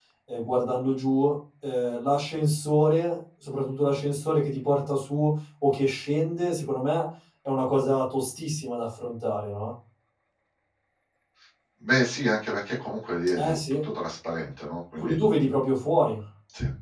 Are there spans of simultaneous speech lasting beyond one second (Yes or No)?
No